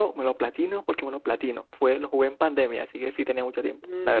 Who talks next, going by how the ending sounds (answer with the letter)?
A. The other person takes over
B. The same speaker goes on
A